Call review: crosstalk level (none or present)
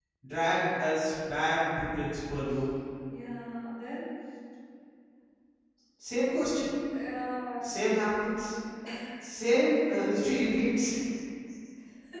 none